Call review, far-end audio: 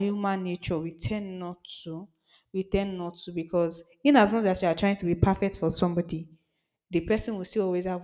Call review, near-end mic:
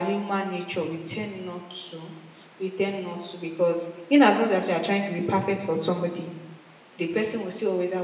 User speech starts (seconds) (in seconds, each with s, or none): none